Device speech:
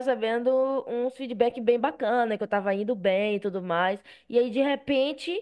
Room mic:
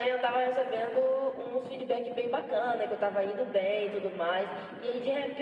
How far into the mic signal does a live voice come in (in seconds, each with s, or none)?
none